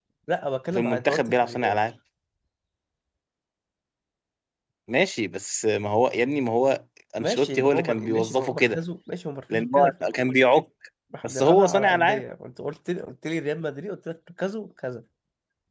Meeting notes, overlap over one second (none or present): present